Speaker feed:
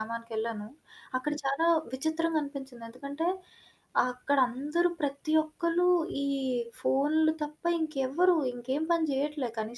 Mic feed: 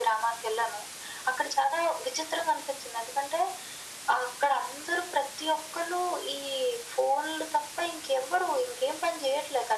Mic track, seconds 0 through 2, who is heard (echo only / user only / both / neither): echo only